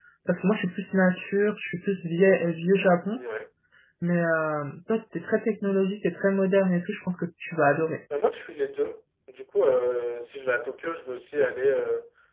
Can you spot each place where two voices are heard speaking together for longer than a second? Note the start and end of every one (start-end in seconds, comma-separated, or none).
none